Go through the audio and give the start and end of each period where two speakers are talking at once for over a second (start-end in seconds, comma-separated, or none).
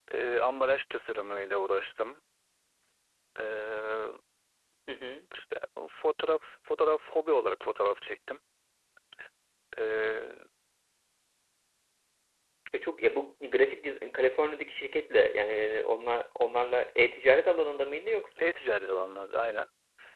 none